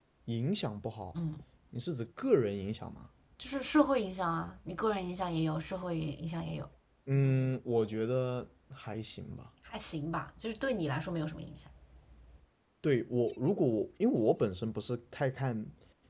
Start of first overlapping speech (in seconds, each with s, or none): none